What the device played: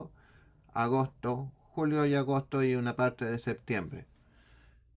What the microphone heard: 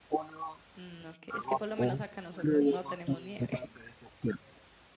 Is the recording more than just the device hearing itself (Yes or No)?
Yes